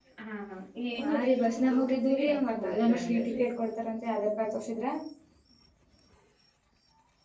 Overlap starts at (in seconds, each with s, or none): 1.0 s